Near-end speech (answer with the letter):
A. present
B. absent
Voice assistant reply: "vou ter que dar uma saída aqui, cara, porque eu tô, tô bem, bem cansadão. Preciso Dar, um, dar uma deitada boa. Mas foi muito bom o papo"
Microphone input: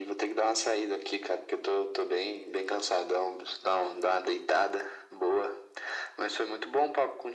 B